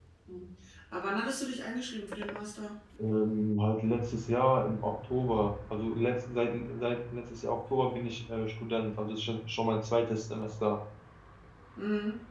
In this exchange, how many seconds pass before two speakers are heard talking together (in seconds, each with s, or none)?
none